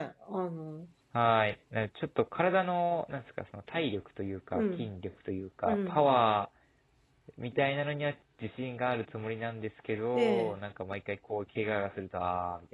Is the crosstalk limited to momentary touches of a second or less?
Yes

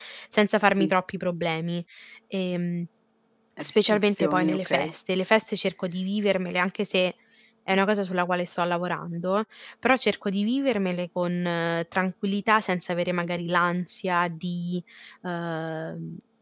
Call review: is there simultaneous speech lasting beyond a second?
Yes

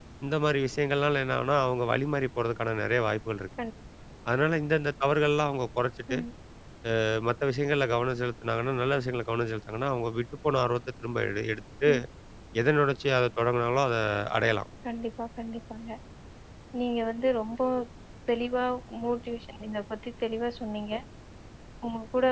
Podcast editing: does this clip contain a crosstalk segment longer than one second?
No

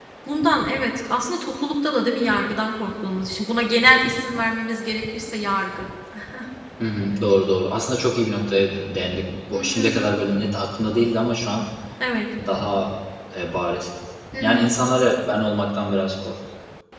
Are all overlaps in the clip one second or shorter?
Yes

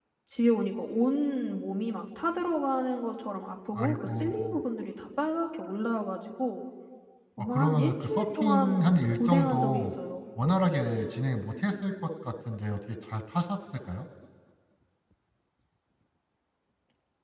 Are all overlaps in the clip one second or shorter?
No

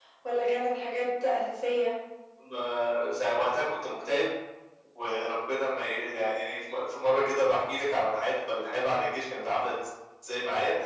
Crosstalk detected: No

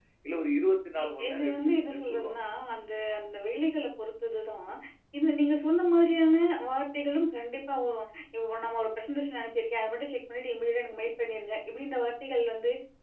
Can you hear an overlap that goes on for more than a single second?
Yes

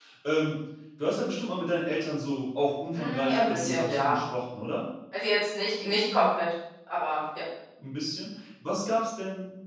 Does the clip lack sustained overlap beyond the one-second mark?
No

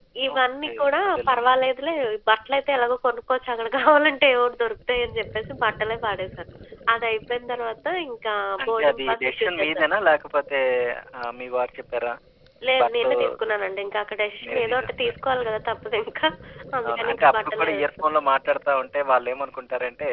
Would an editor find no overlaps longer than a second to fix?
No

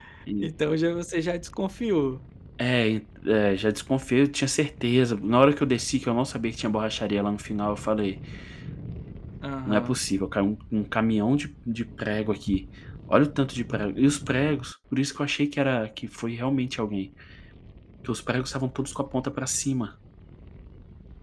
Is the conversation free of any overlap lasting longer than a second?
Yes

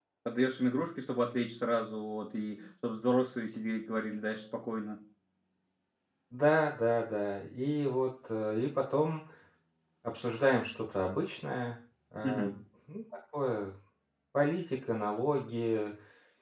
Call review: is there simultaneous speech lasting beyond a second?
No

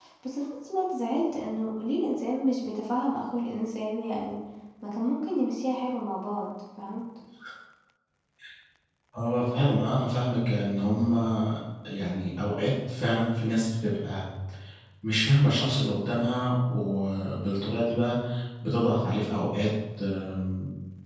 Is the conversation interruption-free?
Yes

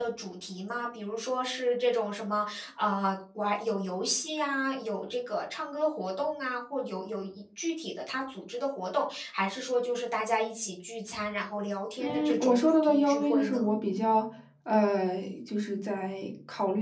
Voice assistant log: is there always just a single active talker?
No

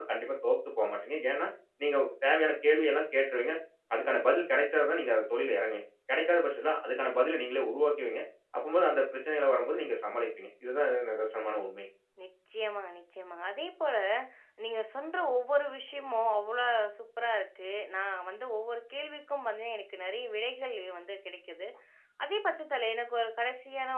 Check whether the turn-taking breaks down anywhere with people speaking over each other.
No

